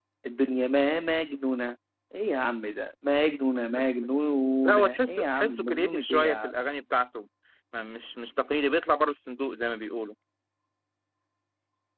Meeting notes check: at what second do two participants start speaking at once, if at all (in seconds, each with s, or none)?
4.6 s